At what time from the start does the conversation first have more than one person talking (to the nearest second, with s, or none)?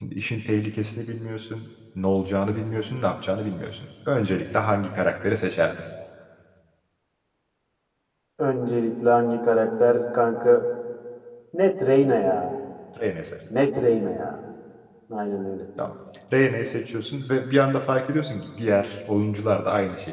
none